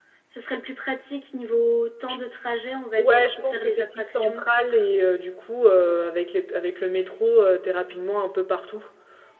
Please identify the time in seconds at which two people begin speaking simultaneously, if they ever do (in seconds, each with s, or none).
3.0 s